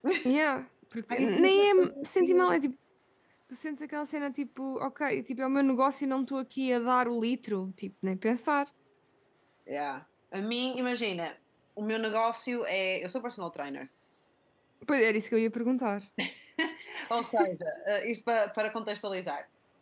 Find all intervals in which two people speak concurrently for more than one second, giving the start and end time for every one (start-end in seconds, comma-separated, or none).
1.1-2.6